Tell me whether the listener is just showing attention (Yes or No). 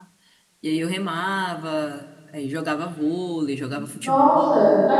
No